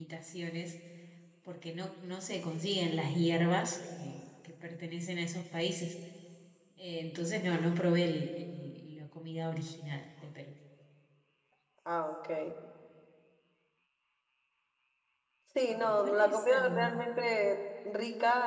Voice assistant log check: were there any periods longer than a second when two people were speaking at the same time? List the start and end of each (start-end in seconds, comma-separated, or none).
15.7-17.0